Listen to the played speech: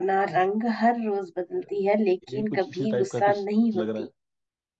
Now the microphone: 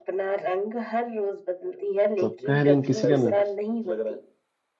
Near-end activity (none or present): present